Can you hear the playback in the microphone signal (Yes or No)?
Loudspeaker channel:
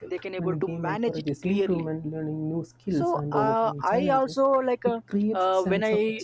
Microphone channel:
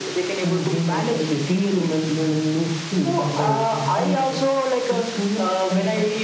Yes